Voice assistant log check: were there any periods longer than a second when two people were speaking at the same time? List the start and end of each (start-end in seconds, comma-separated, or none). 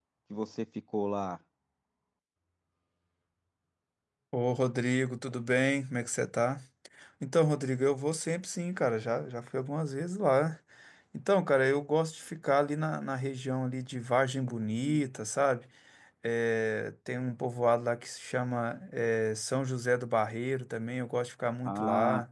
none